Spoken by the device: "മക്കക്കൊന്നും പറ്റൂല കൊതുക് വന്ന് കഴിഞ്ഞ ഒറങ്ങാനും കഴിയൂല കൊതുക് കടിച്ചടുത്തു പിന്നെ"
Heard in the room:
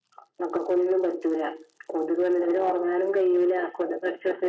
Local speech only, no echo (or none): none